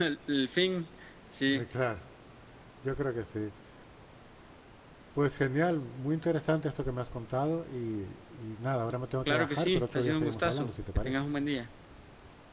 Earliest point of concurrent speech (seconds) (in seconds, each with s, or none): 9.3 s